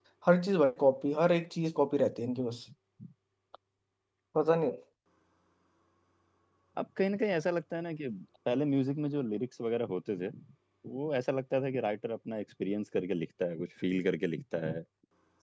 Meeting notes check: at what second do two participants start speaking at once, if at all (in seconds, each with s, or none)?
none